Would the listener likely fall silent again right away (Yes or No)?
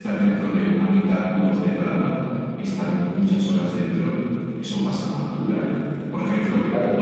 Yes